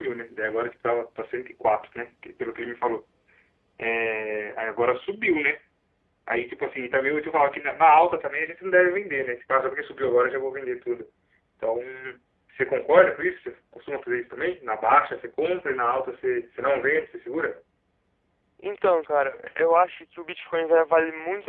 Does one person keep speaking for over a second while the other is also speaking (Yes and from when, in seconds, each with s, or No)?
No